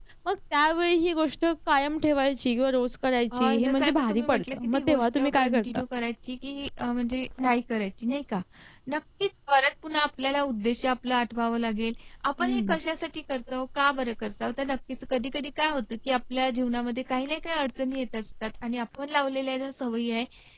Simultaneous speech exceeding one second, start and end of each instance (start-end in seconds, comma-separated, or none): 3.3-5.8